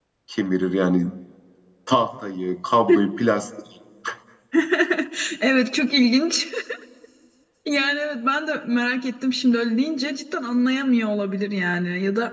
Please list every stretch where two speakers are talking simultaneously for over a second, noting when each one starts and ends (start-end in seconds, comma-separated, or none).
none